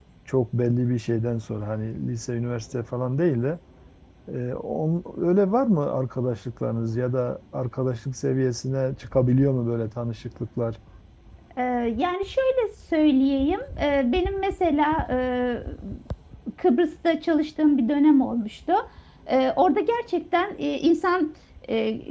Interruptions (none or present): none